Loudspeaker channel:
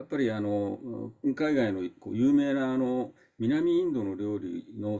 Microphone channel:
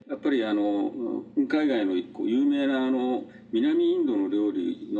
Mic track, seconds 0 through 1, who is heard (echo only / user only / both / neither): echo only